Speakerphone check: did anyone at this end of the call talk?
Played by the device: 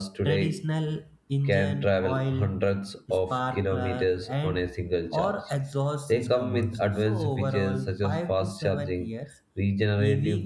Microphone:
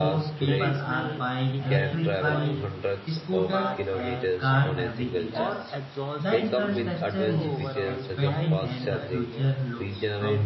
Yes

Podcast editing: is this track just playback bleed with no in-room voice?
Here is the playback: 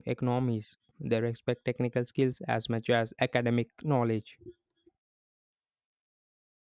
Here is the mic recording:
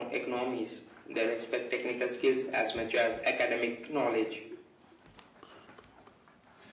Yes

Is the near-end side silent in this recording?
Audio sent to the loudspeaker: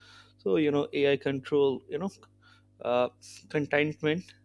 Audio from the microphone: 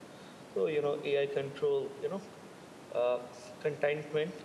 Yes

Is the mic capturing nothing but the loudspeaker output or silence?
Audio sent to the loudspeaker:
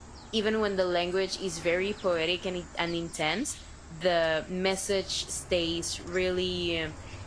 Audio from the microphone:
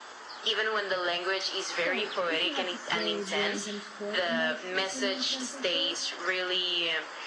No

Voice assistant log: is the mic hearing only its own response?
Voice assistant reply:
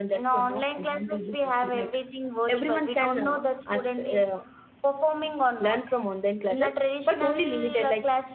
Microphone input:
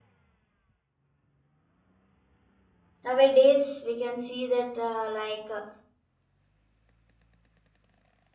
No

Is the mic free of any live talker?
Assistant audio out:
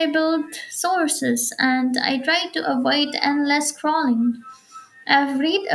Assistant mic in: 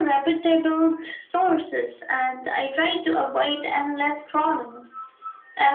Yes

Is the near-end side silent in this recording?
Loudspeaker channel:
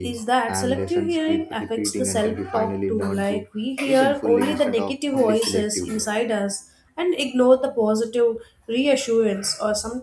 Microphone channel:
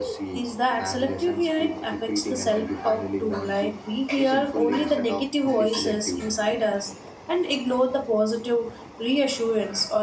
Yes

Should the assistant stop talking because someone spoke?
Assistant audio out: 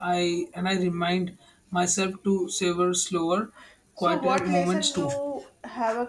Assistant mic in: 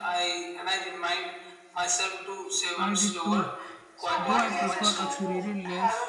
Yes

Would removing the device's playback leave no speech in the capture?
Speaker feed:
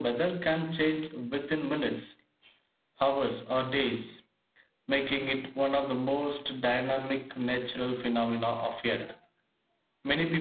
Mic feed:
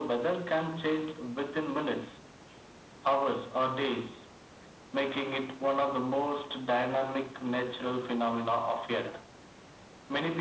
Yes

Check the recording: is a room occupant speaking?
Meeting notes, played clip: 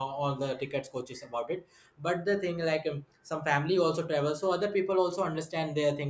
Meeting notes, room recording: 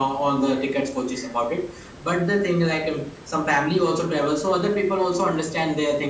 No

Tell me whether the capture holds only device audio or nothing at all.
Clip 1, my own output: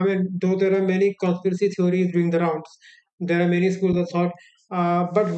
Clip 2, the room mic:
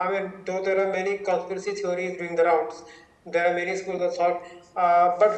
Yes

